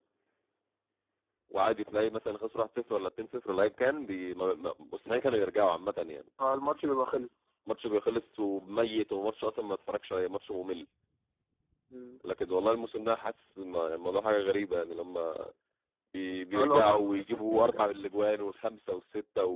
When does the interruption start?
16.5 s

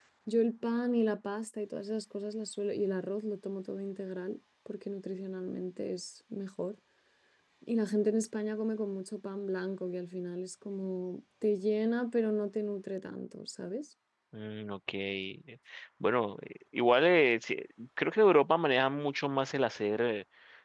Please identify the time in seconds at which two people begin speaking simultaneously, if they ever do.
none

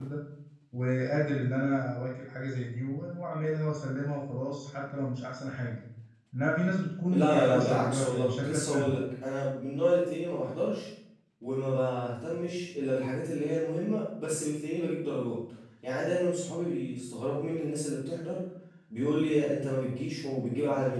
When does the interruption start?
7.1 s

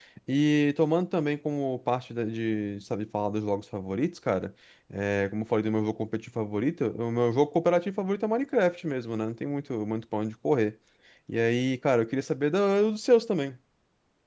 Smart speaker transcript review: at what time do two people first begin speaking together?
none

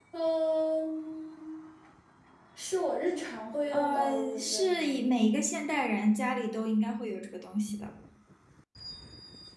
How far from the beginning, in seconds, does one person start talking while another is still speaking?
3.7 s

